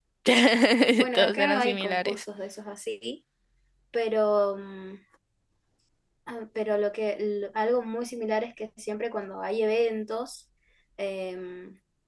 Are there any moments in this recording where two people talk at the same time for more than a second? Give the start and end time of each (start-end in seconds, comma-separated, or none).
0.9-2.2